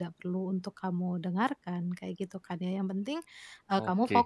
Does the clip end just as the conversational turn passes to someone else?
No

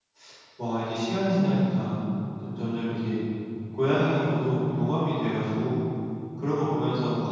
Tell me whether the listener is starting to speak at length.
No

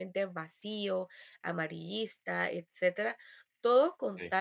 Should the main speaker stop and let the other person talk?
No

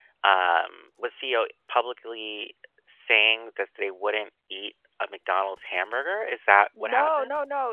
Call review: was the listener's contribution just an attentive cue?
No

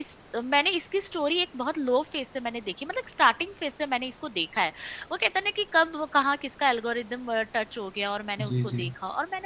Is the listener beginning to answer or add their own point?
No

